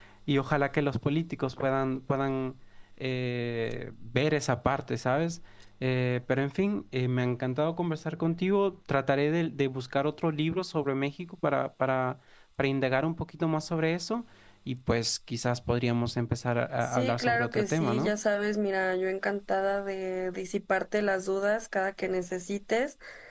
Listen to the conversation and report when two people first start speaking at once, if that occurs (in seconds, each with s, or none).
16.8 s